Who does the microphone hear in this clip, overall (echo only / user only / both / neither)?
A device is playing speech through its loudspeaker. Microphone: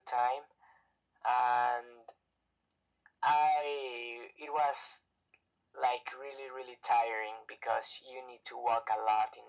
echo only